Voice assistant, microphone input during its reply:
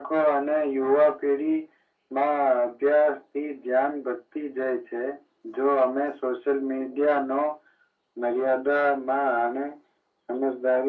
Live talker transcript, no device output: none

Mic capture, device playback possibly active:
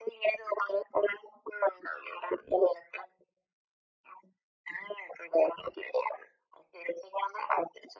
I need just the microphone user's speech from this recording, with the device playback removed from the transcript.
none

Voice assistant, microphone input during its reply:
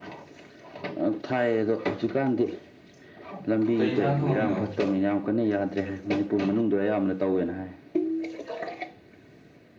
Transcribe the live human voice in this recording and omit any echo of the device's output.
ꯀꯩ ꯌꯦꯟꯁꯥꯡ ꯊꯣꯡꯉꯝꯃꯤꯅꯣ

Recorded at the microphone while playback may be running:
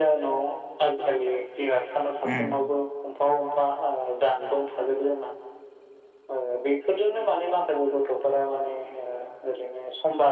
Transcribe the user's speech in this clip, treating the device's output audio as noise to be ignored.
उम

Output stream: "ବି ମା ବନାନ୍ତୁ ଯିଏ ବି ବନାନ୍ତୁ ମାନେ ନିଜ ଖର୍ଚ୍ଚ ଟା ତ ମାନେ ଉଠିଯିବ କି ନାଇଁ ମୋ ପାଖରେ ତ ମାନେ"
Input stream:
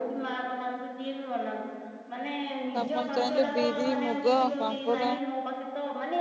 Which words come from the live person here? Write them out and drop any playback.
ଆପଣ ଚାହିଁଲେ ବିରି ମୁଗ ପାମ୍ପଡ଼

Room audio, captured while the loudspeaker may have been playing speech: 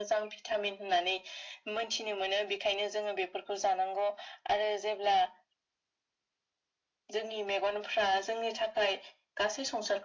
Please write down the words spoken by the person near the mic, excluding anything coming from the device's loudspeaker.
none

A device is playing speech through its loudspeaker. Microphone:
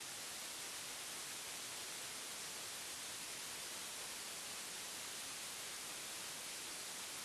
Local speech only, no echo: none

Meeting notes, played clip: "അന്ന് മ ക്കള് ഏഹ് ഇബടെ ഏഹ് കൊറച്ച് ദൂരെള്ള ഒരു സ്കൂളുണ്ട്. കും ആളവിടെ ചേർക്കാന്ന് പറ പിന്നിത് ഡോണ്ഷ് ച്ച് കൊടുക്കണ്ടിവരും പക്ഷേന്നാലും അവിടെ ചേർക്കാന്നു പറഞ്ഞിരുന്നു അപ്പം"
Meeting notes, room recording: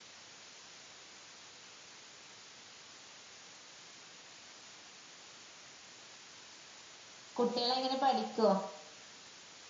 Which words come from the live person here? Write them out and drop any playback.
കുട്ട്യോളെങ്ങനെ പഠിക്കോ?

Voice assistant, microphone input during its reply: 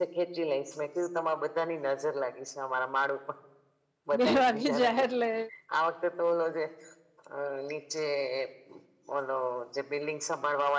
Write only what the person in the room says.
બે વાગે જાય એટલે

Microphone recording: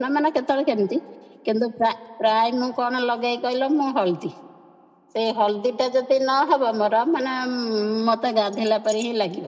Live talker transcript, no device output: none

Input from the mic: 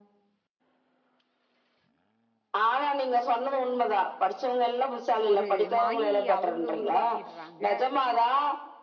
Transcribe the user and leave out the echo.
ஒரு மாயி அவுங்க உருவாக்கிடுறாங்க

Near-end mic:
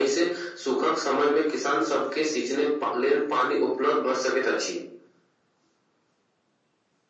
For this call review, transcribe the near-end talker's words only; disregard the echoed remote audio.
none

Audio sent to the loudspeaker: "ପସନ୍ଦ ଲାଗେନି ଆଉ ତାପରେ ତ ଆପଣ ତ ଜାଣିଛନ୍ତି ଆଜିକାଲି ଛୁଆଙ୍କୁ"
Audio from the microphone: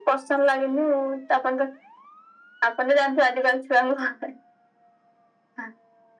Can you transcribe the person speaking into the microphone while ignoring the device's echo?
none

